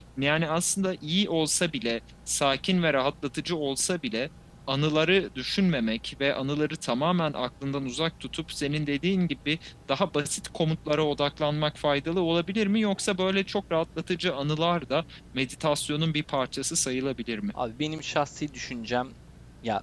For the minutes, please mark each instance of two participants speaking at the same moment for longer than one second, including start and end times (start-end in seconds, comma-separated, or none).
none